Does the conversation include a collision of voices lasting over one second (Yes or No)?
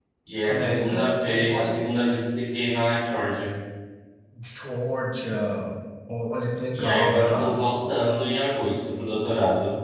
Yes